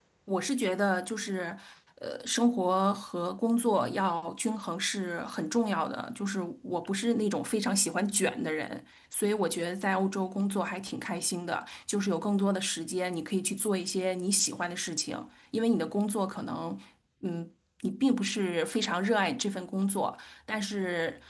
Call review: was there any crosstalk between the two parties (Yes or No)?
No